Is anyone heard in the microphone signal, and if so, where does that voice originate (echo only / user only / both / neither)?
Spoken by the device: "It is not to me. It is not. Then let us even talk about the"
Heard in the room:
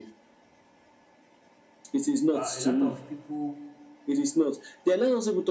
both